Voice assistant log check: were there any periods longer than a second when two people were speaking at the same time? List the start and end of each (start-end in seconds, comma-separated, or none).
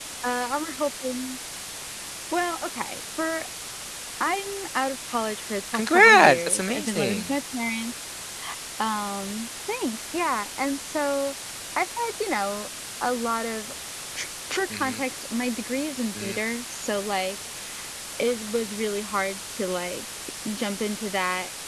5.7-7.3